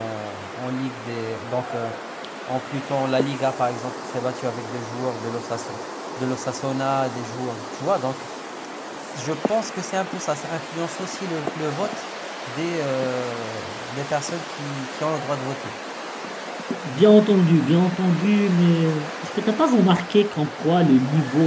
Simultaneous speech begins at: none

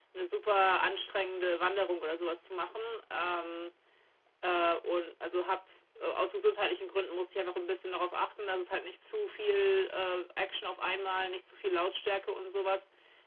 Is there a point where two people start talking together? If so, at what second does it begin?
none

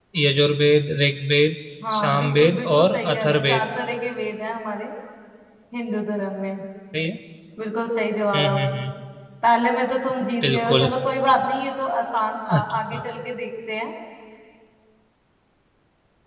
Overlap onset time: 2.0 s

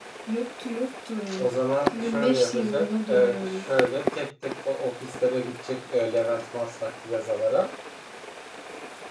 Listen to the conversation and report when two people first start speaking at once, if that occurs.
1.9 s

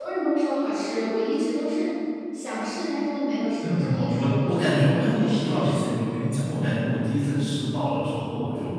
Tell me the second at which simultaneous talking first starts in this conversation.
3.6 s

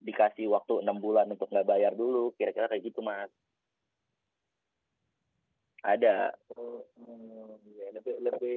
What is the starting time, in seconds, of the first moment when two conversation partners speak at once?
none

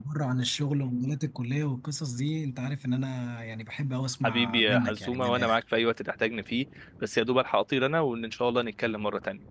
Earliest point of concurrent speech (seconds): 4.2 s

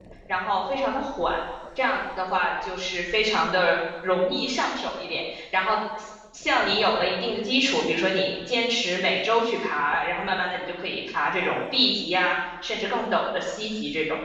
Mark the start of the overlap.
none

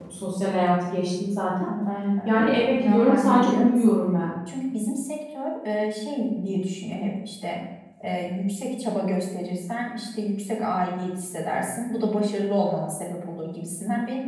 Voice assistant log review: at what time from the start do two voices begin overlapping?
2.8 s

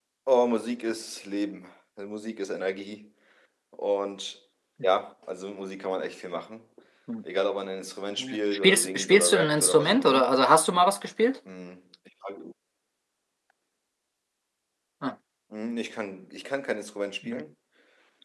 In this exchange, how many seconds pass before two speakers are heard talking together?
8.2 s

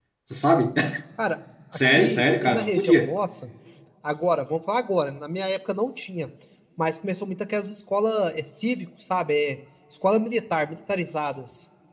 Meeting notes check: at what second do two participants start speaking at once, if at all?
1.9 s

